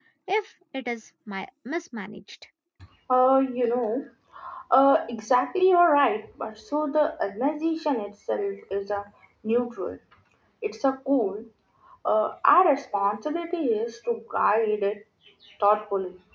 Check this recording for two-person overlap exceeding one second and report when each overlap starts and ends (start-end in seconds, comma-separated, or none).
none